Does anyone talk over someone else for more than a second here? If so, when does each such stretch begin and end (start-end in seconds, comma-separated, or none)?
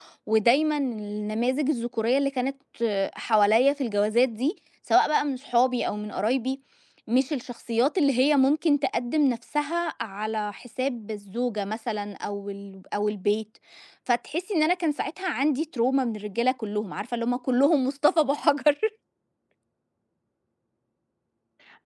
none